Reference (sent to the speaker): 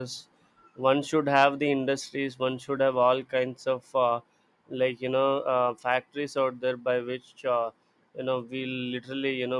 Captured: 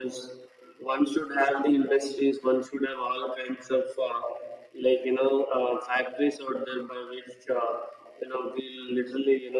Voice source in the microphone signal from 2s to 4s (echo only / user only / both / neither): echo only